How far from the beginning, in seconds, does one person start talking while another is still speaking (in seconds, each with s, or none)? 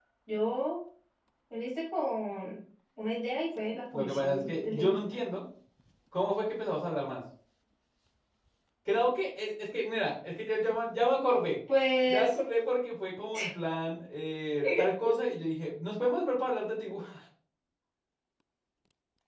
3.9 s